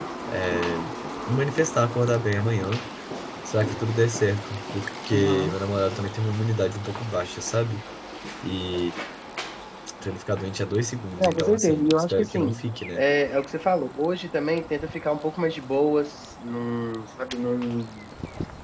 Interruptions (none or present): present